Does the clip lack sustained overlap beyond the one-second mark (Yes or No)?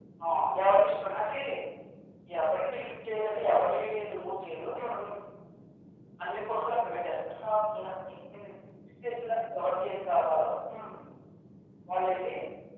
Yes